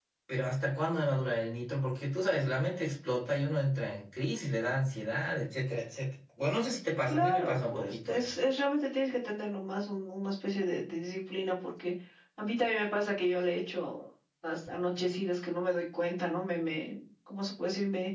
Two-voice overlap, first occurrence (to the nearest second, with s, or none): 7 s